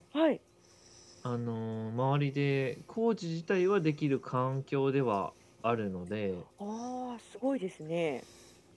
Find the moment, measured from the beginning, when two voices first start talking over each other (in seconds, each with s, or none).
none